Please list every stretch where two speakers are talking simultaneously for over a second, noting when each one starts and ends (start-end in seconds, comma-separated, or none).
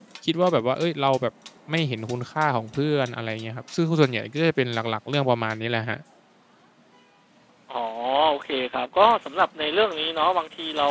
none